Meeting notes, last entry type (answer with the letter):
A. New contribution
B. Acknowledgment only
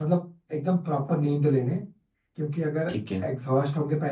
B